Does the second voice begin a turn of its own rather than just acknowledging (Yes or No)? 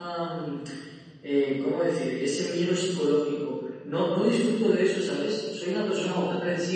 No